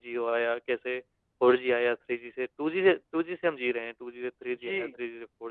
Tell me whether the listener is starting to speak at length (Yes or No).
No